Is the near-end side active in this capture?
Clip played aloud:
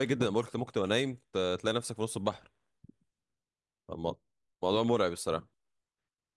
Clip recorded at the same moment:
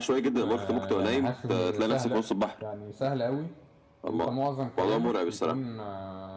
Yes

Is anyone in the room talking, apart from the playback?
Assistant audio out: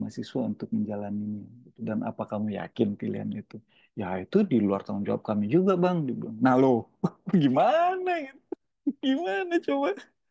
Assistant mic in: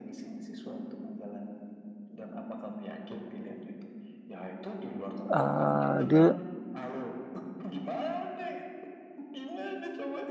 Yes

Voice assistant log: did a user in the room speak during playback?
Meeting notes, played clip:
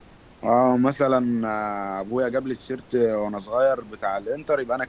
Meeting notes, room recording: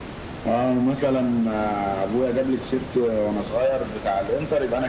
No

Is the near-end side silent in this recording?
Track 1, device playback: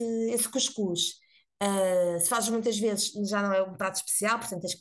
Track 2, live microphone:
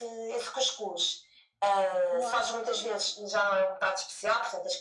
No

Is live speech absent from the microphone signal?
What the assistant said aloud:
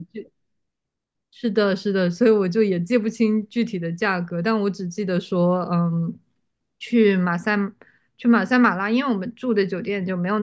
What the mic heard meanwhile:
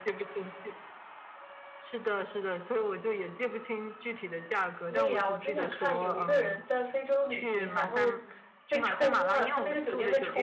No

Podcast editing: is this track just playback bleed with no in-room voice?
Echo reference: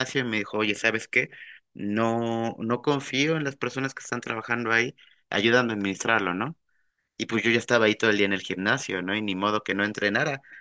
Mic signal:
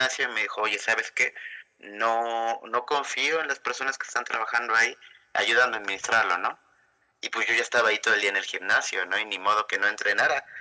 Yes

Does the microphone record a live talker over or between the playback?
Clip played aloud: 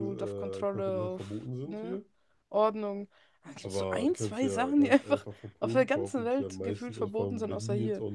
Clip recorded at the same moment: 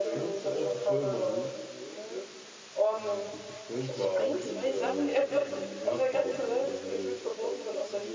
Yes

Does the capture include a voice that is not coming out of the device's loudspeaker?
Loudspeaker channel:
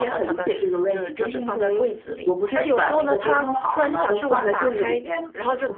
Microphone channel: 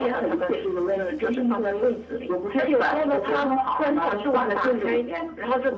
No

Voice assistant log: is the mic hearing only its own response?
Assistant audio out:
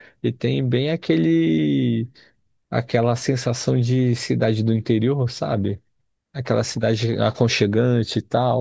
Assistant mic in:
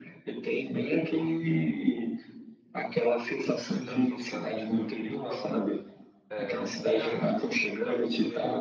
No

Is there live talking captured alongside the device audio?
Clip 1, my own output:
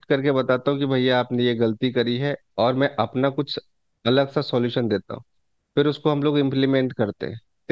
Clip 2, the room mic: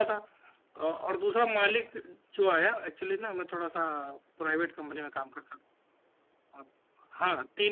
Yes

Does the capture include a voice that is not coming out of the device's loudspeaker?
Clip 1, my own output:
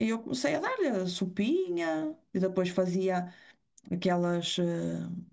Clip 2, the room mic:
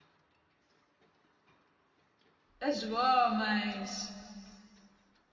Yes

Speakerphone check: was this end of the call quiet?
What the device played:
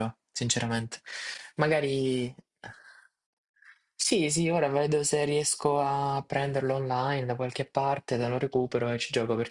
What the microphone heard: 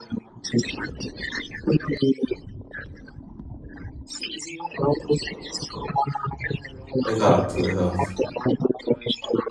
No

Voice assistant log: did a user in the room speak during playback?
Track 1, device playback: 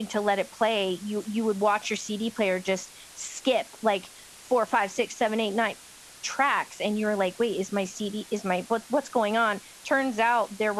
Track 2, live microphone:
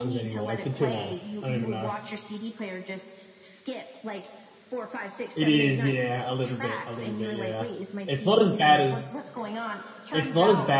Yes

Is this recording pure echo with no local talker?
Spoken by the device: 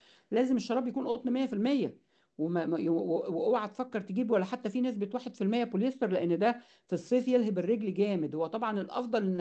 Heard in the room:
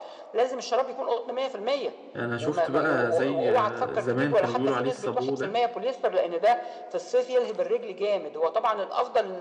No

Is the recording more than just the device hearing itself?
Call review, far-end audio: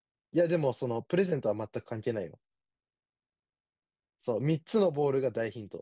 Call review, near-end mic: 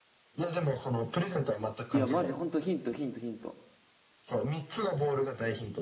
Yes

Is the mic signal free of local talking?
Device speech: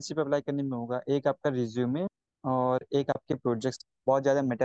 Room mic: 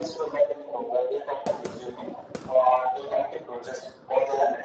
Yes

